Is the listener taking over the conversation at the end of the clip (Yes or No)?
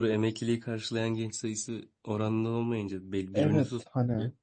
Yes